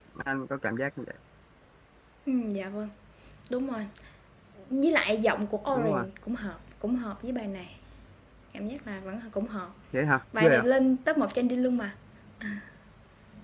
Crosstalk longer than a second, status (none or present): none